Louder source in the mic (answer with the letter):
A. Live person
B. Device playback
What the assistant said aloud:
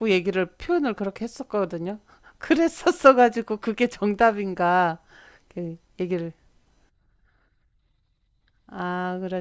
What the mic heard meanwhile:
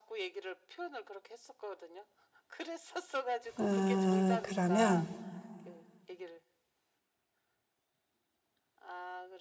A